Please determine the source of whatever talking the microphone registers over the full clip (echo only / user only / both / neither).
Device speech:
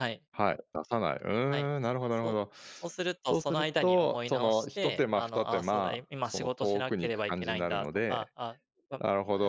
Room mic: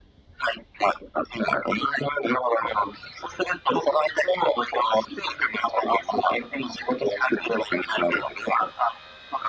echo only